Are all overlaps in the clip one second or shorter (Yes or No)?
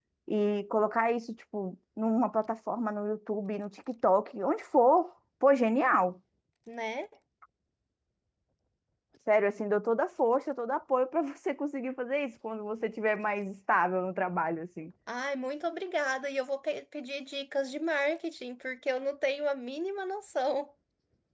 Yes